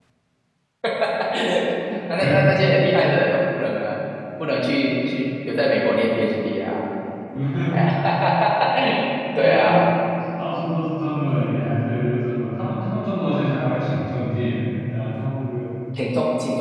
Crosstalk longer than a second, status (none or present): none